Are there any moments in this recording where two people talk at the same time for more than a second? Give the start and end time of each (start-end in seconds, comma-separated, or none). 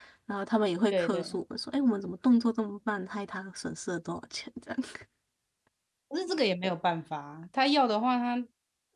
none